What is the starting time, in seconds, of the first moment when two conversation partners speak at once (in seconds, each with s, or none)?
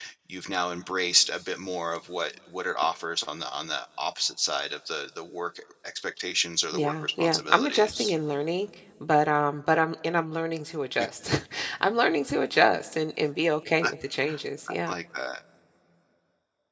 6.7 s